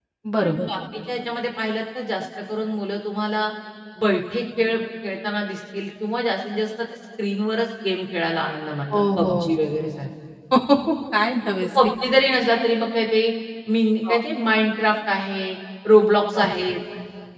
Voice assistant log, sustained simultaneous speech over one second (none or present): none